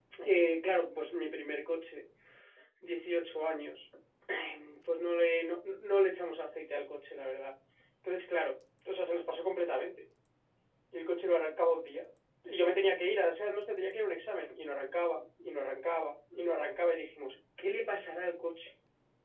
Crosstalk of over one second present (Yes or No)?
No